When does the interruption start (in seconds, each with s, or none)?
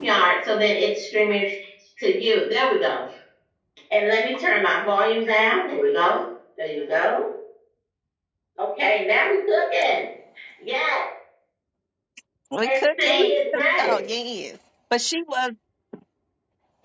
12.6 s